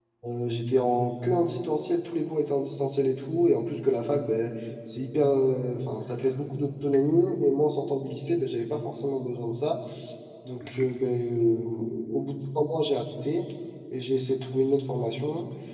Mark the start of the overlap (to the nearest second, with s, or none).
none